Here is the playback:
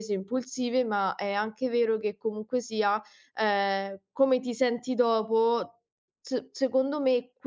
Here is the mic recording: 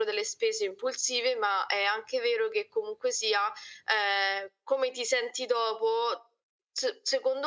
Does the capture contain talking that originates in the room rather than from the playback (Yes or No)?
No